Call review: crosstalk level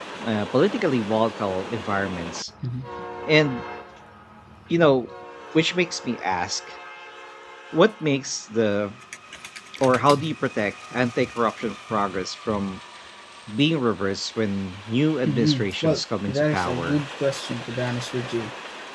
present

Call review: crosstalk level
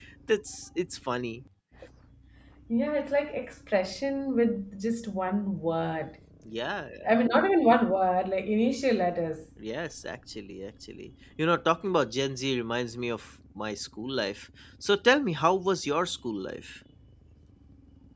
none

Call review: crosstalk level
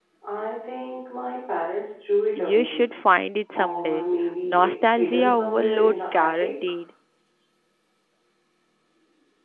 present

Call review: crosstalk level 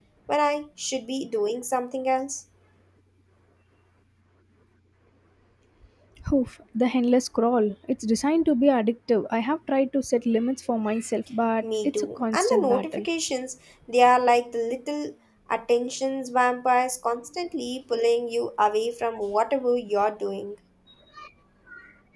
present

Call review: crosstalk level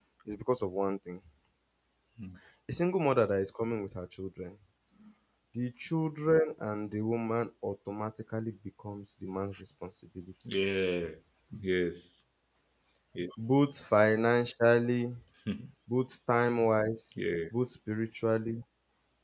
none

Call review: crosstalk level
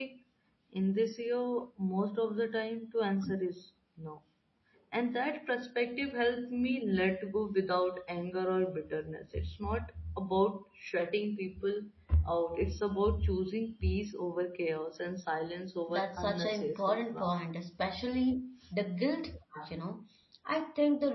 present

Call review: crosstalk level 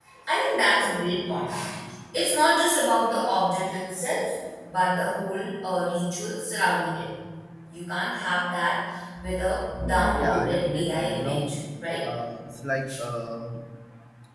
present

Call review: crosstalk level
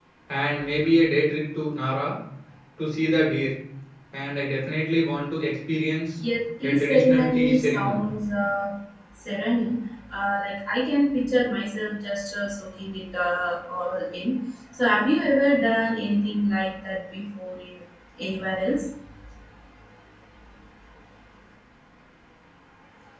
present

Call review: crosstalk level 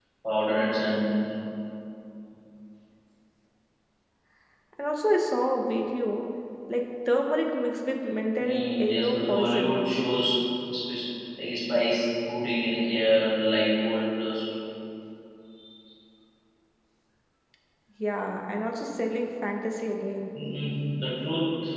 present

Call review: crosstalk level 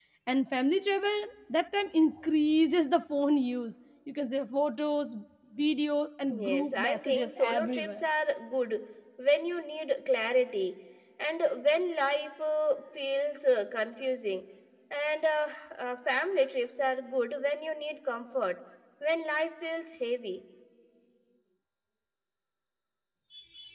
present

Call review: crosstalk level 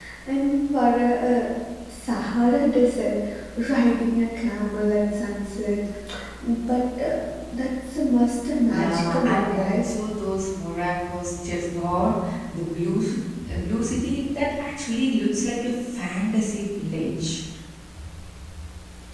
present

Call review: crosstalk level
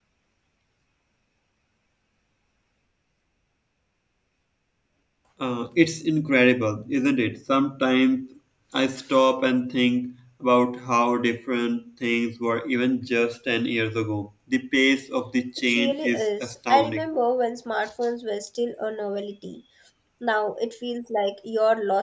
present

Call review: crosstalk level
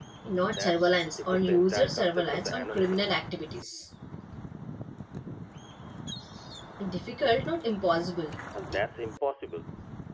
present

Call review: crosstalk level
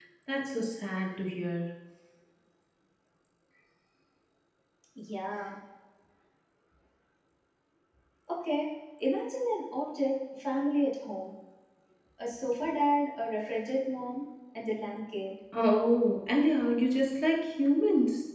none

